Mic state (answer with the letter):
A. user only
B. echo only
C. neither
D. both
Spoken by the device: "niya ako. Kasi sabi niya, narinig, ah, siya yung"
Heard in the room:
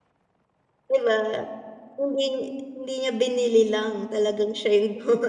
A